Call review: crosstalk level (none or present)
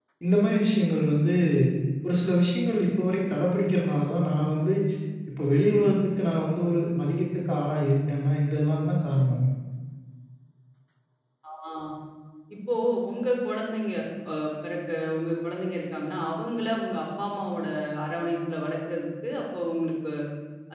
none